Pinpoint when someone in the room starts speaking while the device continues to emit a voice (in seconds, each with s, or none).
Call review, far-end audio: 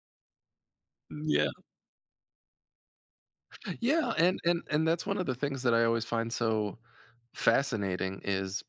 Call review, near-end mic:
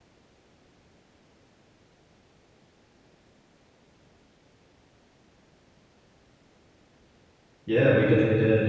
7.6 s